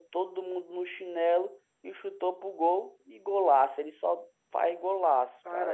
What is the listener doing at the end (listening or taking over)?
taking over